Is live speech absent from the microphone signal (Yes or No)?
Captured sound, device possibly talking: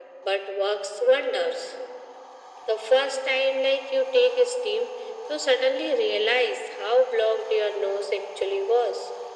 Yes